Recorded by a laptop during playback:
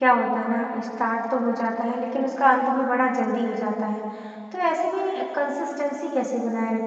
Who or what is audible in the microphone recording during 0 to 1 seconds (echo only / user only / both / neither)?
user only